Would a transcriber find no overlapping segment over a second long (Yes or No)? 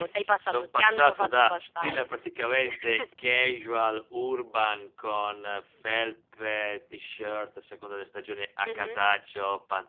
No